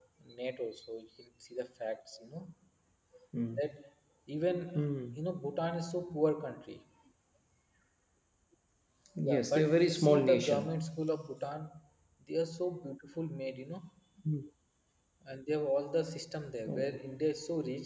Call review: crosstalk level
present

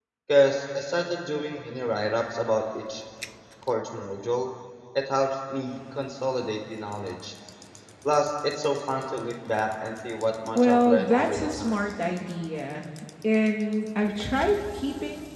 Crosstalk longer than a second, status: present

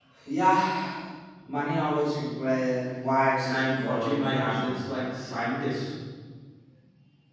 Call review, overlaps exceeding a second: present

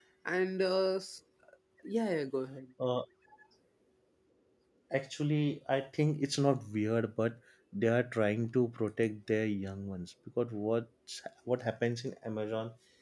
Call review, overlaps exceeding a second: none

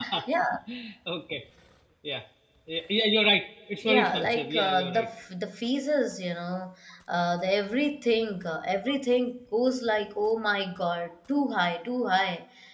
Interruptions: present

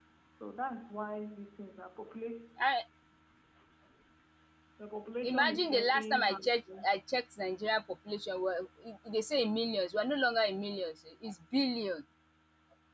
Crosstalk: present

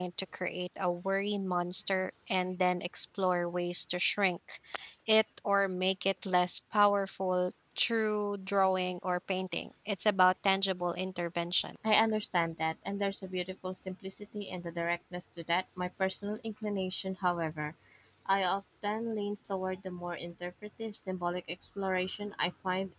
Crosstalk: none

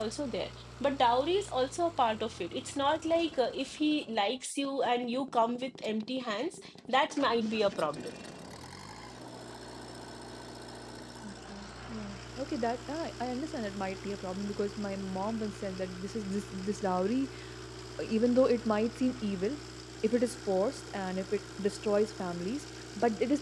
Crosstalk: none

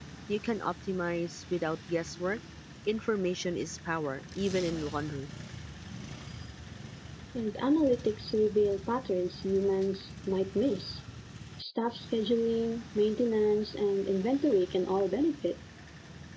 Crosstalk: none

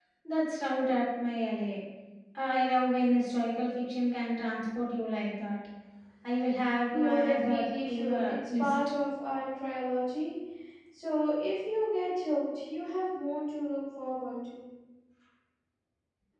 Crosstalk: present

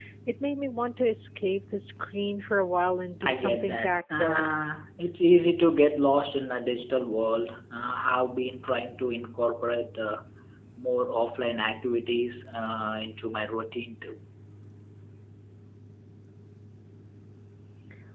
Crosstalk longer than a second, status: present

